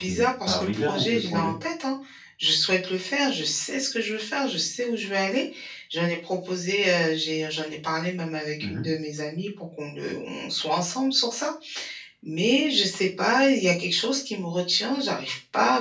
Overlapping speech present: Yes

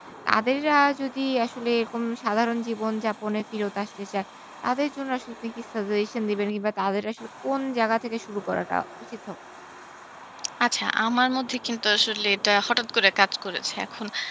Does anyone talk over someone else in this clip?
No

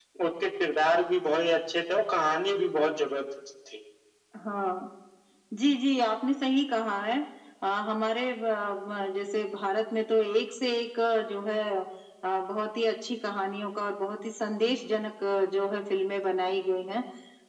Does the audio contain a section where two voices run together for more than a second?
No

